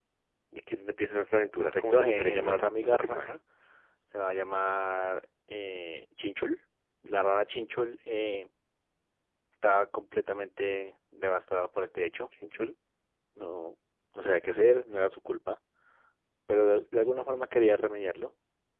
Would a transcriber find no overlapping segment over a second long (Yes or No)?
No